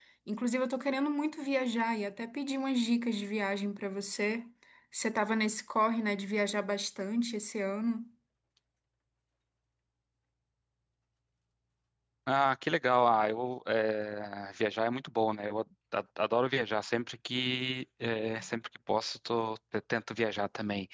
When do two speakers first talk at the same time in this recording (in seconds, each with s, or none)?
none